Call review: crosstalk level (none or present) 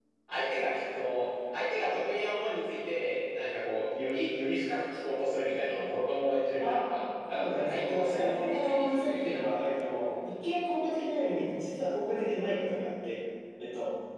present